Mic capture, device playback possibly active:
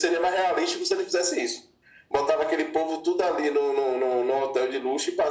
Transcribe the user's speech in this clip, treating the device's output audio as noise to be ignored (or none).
none